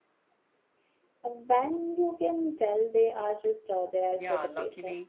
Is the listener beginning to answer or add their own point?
Yes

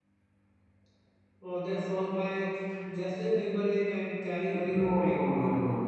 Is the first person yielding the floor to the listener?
Yes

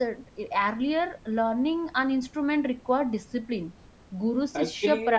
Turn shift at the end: Yes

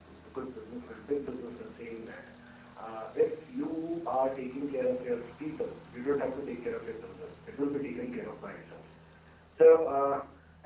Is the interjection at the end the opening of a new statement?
No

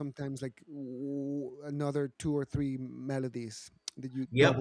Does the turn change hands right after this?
Yes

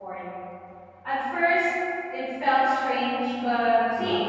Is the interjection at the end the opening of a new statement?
No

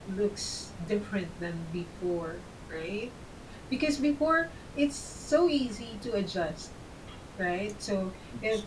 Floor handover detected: No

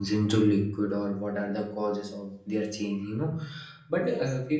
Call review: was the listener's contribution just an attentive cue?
Yes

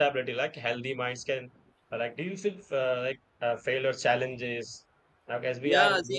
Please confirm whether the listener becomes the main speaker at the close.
Yes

